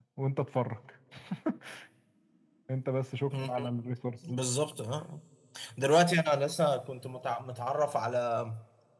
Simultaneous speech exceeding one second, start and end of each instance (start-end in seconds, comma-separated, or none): none